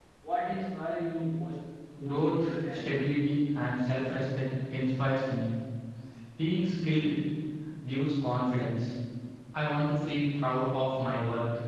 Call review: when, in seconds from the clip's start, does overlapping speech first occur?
2.0 s

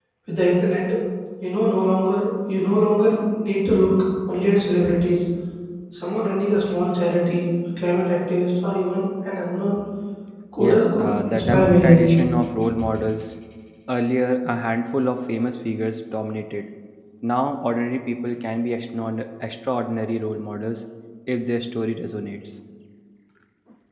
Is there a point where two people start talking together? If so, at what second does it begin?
10.6 s

